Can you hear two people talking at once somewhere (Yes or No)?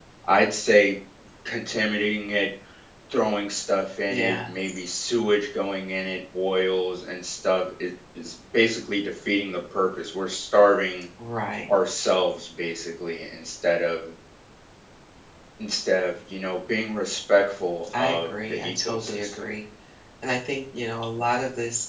Yes